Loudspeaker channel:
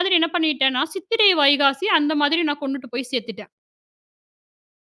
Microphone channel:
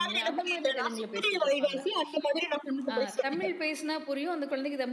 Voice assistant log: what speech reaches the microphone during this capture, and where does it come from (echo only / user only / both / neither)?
both